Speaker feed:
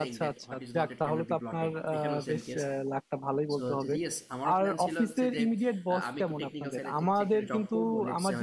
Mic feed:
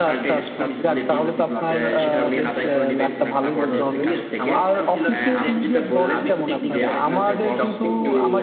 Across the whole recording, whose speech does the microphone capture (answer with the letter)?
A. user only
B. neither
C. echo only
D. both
D